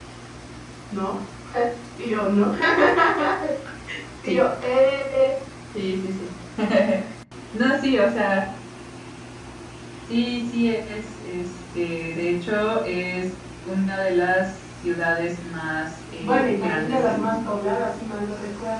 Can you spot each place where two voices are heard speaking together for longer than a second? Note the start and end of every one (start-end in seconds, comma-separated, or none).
16.2-17.5